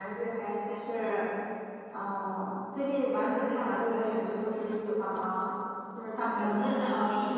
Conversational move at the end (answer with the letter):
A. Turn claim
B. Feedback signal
A